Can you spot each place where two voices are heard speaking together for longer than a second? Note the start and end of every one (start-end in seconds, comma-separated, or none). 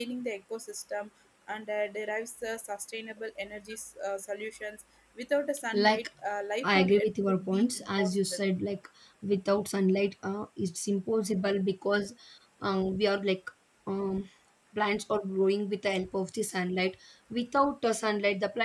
6.6-8.4